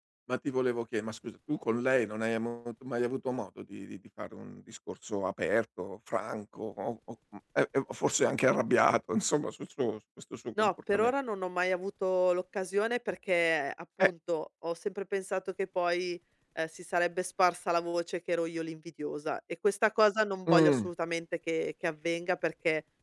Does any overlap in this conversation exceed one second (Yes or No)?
No